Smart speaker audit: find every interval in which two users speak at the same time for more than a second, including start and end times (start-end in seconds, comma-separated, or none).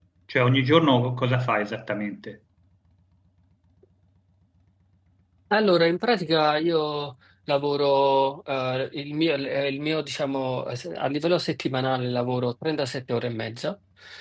none